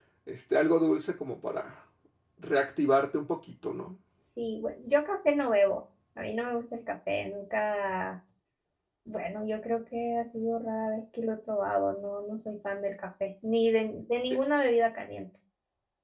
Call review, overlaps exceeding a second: none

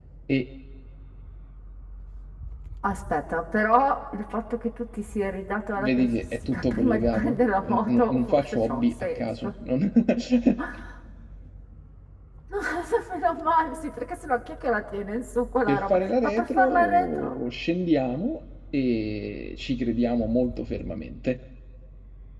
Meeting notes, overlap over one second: present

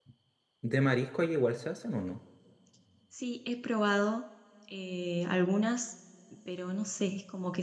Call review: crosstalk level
none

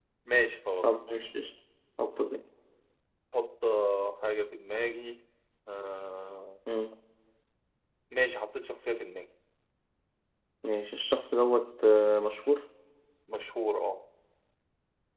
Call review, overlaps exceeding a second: none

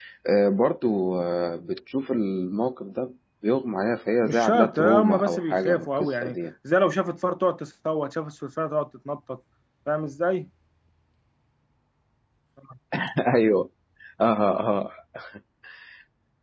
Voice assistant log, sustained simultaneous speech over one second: present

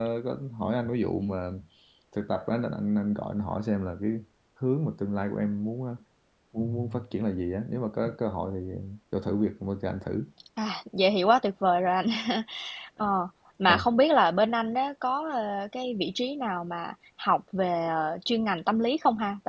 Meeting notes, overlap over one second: none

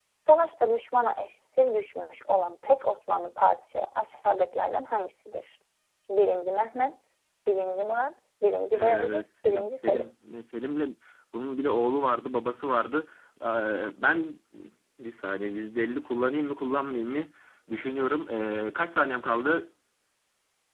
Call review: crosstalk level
present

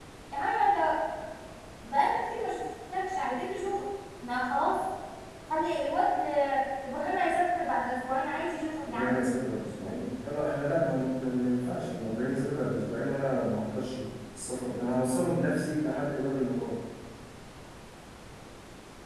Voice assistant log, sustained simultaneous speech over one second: none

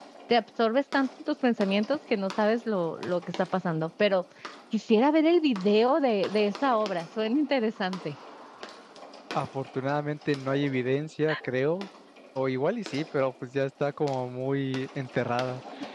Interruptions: none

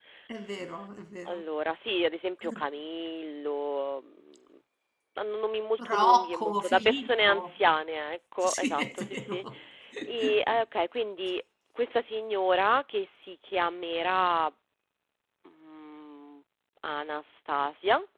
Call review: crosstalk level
present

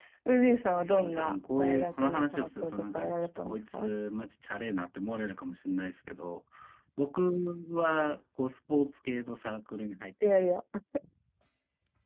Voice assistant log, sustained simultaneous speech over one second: present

